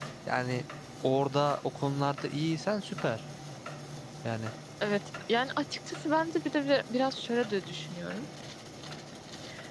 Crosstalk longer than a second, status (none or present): none